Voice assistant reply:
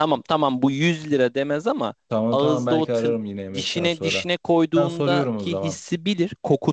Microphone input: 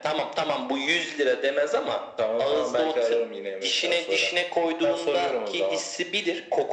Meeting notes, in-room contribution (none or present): none